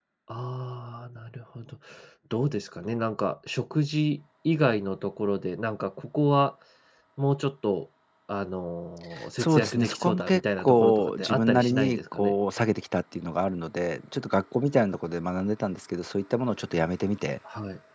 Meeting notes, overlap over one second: present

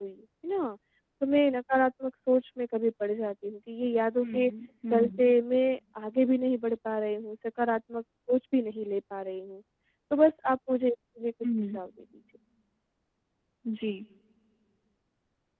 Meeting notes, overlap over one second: none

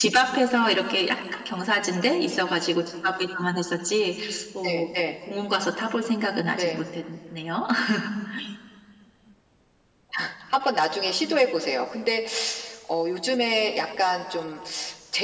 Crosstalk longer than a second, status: none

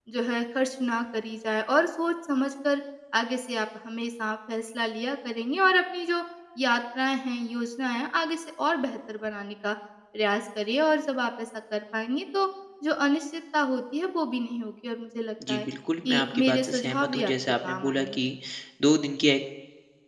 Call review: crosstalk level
present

